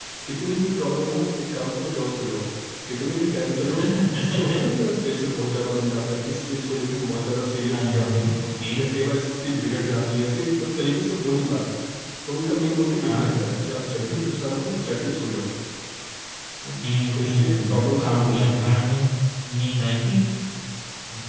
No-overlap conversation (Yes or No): No